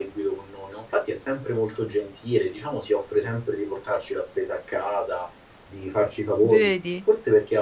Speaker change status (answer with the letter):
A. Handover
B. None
B